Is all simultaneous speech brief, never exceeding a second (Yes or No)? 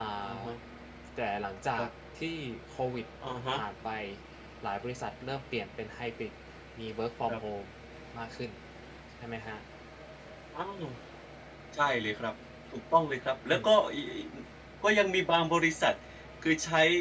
Yes